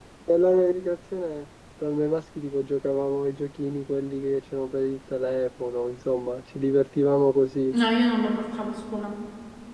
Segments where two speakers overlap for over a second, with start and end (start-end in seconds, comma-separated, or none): none